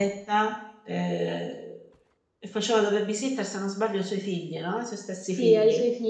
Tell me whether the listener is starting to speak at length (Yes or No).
Yes